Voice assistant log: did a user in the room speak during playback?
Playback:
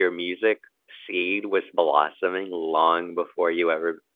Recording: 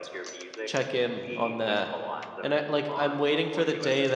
Yes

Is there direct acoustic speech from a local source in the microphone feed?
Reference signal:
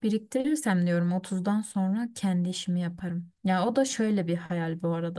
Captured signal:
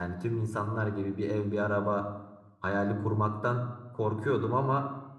Yes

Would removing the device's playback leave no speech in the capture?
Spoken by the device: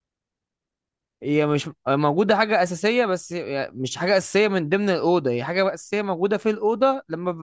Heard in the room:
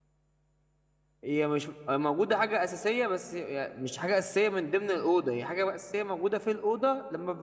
Yes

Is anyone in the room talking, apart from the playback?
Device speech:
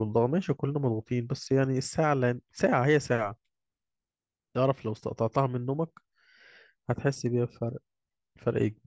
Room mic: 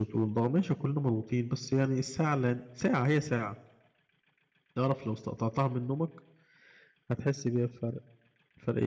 No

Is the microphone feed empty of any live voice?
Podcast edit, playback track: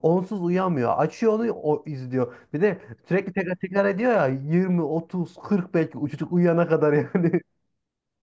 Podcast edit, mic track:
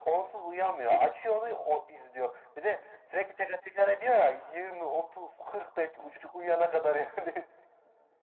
Yes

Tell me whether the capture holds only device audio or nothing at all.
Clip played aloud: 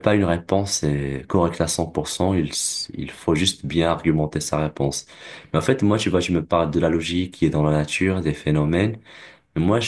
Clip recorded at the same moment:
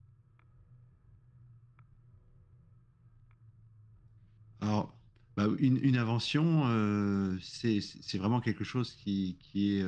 No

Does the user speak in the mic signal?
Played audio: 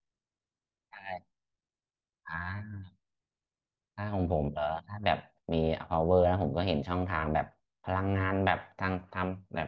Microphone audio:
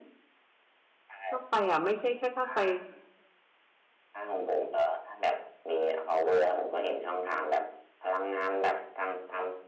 Yes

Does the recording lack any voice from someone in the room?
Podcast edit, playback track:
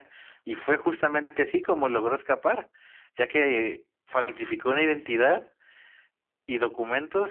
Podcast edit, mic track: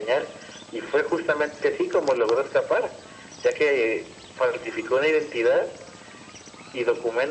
Yes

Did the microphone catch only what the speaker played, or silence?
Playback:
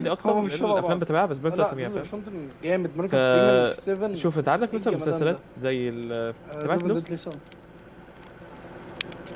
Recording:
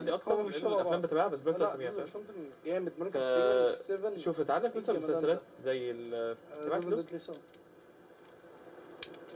Yes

